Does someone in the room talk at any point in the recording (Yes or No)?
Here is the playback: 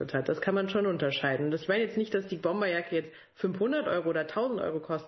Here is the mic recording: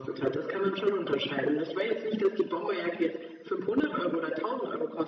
No